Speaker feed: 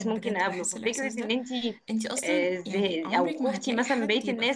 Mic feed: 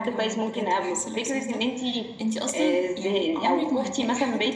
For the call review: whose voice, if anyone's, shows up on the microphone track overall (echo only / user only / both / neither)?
echo only